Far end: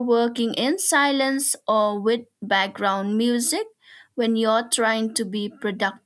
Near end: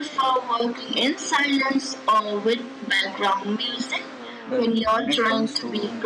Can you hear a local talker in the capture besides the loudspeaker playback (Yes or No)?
Yes